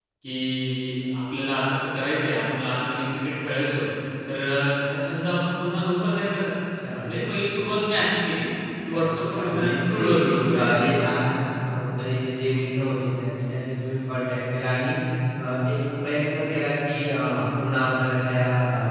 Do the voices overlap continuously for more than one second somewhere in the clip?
Yes, from 8.9 s

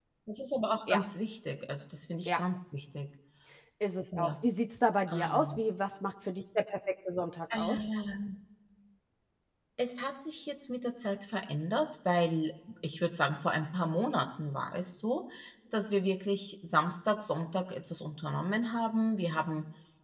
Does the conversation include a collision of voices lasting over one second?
No

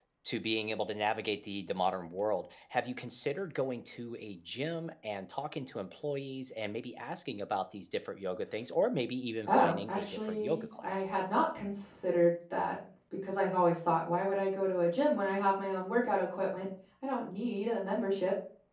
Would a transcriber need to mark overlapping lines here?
Yes, from 9.5 s

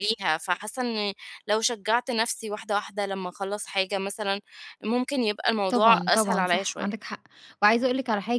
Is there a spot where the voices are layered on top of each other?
Yes, from 5.7 s

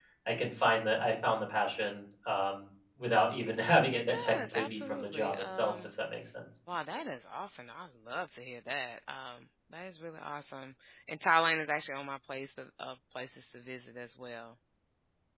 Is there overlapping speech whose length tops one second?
Yes, from 3.9 s

